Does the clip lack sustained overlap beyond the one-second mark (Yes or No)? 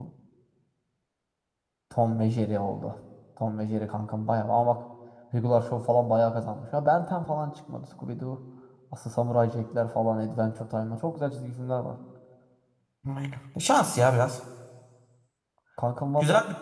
Yes